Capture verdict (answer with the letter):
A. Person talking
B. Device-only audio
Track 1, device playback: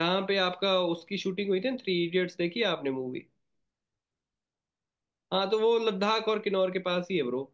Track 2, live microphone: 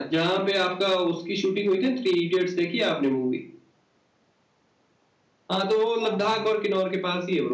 A